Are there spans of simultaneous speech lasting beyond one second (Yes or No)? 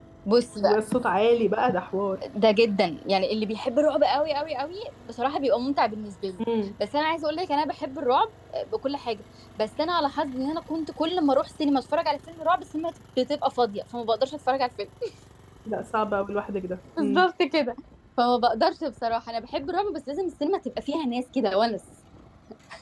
No